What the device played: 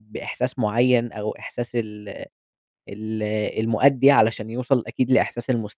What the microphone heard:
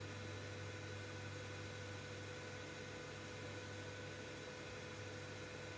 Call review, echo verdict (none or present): none